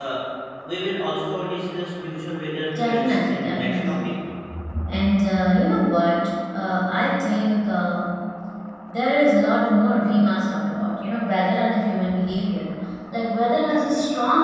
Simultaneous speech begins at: 2.8 s

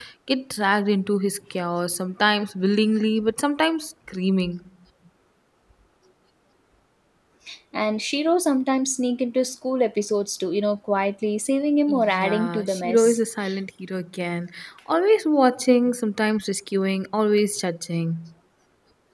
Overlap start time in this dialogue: 11.9 s

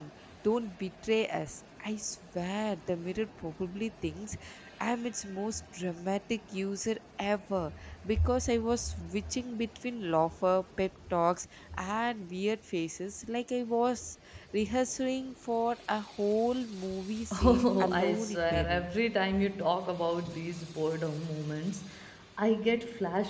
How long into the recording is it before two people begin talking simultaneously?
17.5 s

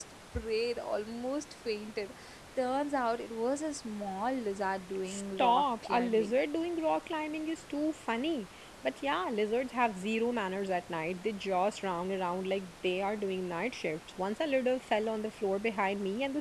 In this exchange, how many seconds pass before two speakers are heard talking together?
5.1 s

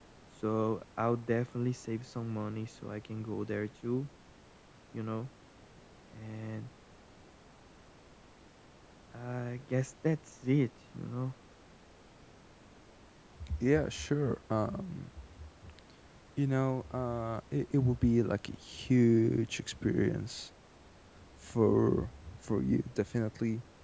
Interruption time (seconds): none

